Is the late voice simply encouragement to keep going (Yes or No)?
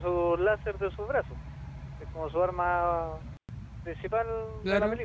No